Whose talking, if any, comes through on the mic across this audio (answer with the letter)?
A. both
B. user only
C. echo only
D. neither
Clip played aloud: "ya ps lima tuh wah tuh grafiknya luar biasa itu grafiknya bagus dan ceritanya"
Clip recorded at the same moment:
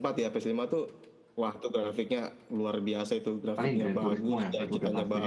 A